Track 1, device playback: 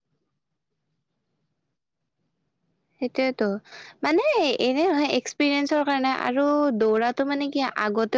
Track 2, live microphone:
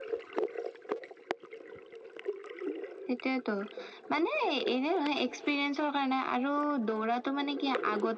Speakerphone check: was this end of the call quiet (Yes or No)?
Yes